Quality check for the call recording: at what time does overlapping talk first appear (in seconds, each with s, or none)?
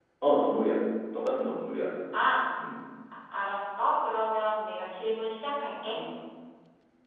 none